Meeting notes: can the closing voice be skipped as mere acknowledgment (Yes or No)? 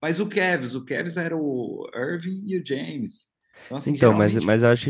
No